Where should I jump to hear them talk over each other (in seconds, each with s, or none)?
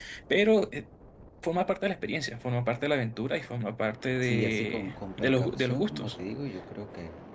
4.2 s